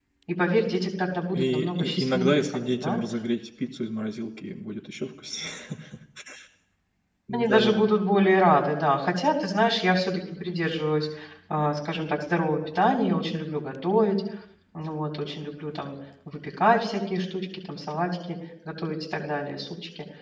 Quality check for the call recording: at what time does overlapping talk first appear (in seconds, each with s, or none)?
1.4 s